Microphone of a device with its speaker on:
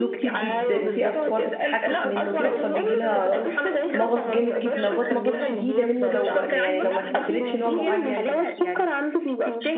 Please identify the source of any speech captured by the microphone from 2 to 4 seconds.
both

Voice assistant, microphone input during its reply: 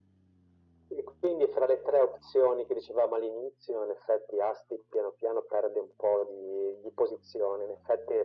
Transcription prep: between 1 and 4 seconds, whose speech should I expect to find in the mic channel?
echo only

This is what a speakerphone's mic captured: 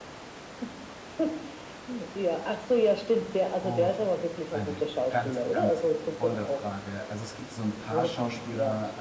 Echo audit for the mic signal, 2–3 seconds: echo only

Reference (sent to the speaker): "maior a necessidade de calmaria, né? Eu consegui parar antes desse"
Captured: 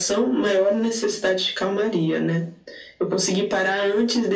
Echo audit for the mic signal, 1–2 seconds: echo only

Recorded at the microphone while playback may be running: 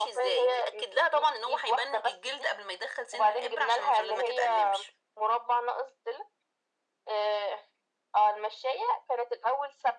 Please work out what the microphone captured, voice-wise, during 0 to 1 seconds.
echo only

